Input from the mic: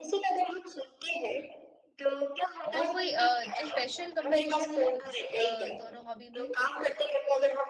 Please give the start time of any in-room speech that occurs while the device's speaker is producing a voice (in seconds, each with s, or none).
2.7 s